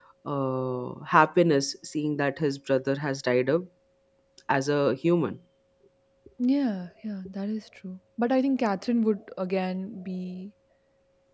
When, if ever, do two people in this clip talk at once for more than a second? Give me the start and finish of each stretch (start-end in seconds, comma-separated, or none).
none